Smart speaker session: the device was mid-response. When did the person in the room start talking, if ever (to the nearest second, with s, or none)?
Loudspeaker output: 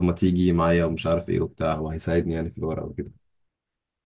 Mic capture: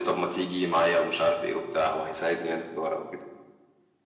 none